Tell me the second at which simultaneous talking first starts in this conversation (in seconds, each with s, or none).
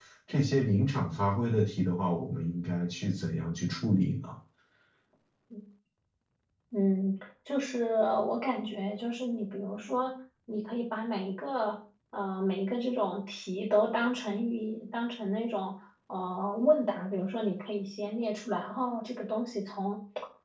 none